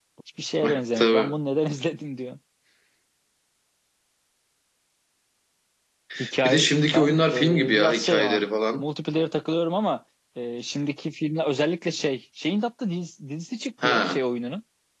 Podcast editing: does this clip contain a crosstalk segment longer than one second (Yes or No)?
Yes